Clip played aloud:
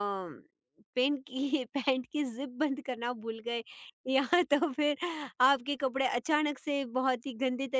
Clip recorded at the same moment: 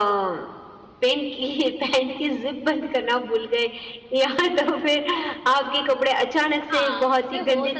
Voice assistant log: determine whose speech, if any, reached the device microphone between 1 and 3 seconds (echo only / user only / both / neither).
echo only